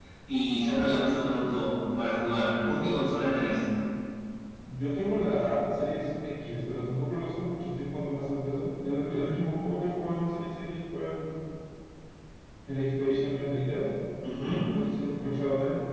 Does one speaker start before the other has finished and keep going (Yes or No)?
No